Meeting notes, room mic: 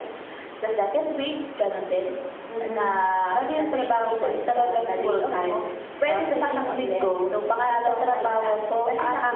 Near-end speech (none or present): none